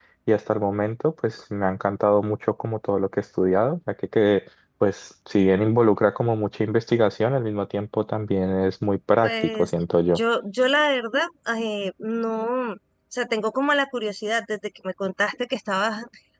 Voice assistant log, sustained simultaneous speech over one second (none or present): none